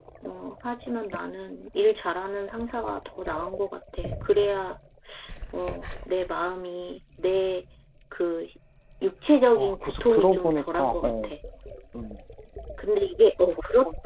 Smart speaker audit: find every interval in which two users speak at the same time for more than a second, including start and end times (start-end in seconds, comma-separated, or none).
9.6-11.3